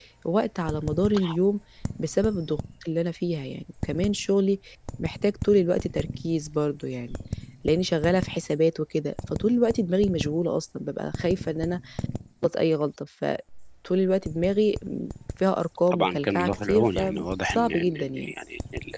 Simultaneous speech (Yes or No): Yes